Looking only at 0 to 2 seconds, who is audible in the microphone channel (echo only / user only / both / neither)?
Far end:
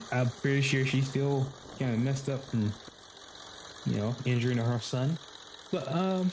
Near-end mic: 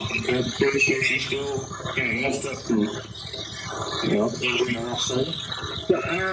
echo only